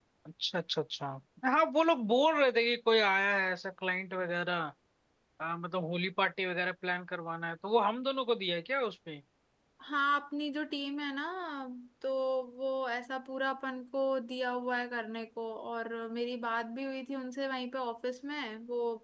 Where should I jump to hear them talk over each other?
none

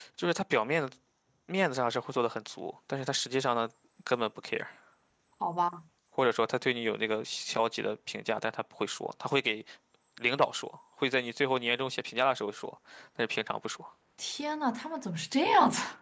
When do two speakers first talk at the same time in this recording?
none

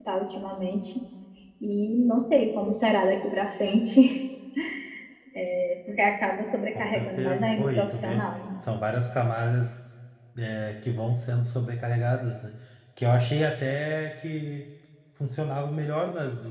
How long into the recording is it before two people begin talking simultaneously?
6.8 s

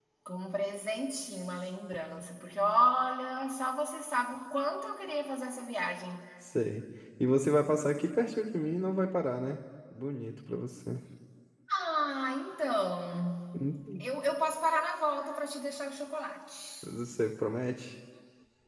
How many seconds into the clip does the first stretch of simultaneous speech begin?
none

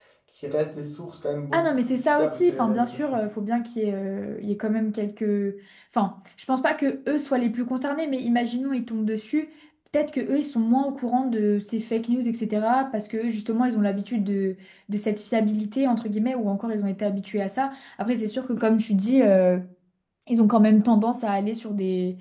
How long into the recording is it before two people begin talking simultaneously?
1.5 s

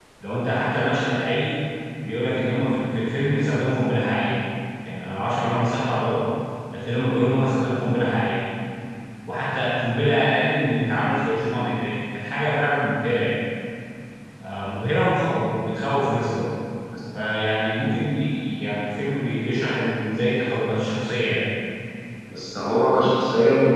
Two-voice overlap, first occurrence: none

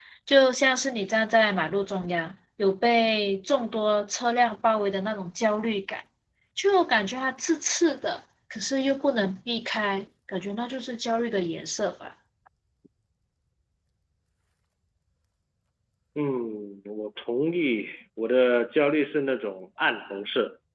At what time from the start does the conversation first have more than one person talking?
none

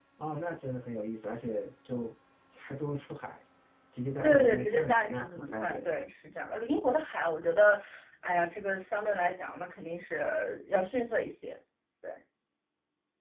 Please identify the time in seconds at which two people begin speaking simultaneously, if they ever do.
4.2 s

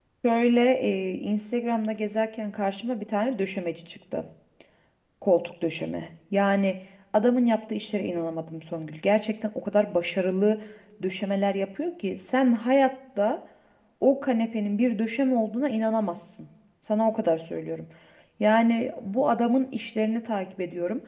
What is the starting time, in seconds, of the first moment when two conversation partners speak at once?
none

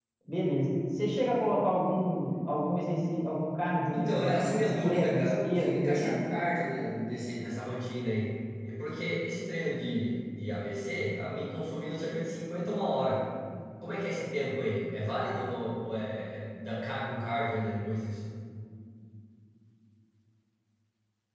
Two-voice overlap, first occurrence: 3.9 s

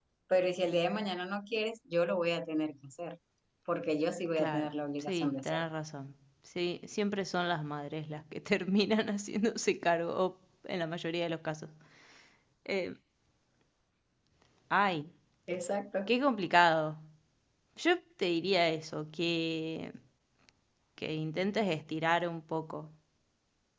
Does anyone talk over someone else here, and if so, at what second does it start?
4.4 s

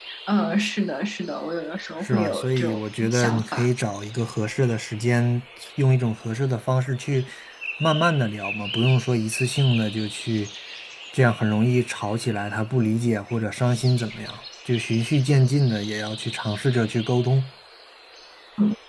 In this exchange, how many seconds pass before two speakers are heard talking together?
2.0 s

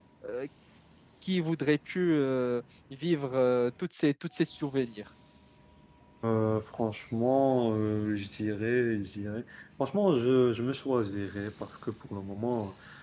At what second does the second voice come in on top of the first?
none

